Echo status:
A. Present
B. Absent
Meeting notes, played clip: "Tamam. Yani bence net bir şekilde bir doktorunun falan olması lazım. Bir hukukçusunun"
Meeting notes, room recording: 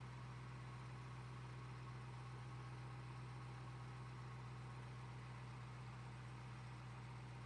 B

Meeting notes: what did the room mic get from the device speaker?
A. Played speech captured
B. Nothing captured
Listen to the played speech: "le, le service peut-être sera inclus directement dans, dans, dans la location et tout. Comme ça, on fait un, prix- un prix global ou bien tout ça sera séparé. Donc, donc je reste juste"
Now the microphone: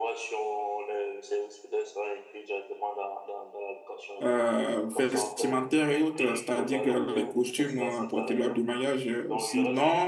A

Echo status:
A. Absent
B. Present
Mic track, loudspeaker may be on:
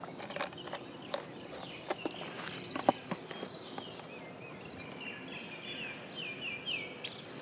A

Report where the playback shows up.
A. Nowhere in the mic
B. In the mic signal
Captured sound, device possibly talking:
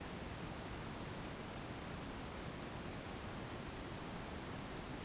A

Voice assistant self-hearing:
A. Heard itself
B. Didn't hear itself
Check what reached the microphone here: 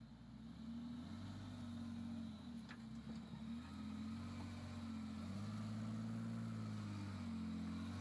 B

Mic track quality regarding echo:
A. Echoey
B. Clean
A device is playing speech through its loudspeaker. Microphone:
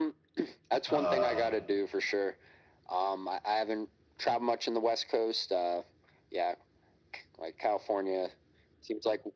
A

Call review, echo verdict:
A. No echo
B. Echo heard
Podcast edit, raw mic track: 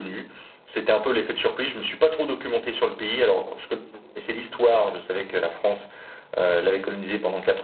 B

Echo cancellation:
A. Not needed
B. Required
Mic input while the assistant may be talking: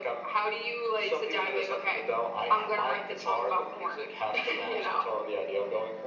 B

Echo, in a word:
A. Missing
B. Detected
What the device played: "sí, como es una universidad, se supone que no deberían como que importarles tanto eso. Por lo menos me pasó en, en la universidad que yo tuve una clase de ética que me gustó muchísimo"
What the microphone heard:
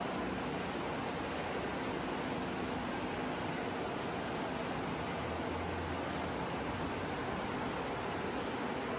A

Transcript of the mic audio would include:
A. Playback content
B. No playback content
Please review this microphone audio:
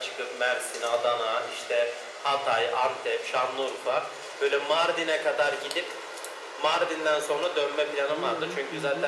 A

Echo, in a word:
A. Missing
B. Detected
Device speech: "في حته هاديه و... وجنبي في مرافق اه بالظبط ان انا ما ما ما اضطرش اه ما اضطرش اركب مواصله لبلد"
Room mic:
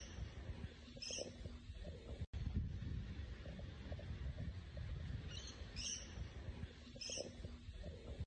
A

